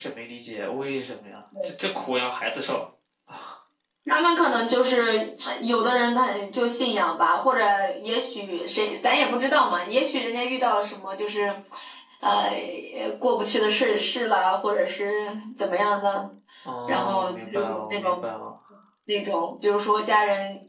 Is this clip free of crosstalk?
No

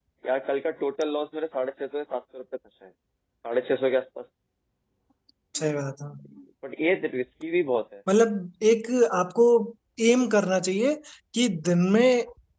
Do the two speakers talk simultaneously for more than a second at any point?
No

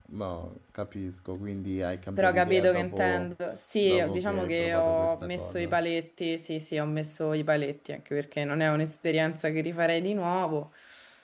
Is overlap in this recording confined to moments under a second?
No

